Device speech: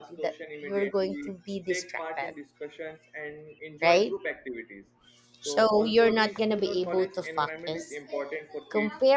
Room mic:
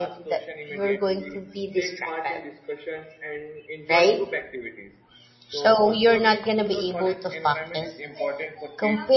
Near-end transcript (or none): none